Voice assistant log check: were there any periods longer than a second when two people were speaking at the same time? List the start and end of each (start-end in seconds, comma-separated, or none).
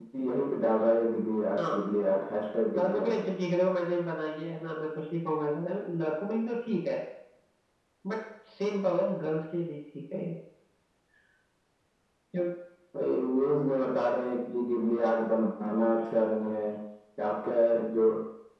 none